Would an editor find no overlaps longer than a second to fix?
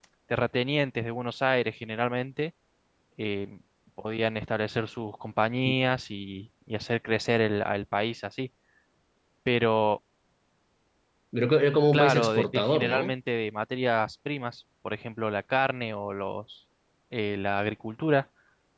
No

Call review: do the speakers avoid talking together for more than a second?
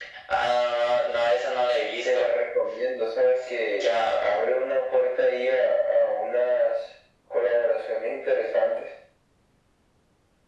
Yes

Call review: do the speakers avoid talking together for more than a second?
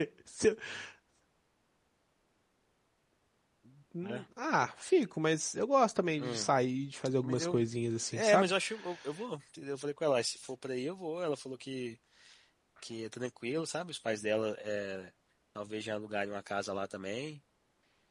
Yes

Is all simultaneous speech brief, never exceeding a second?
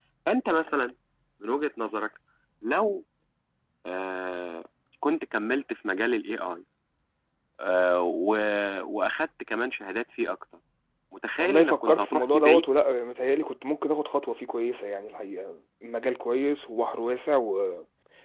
No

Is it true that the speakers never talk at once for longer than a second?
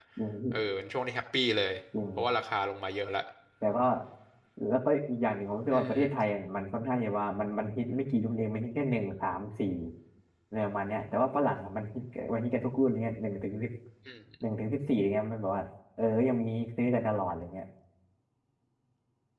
Yes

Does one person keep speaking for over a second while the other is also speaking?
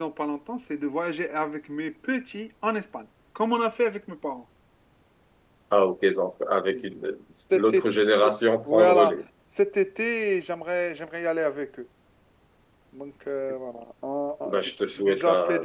Yes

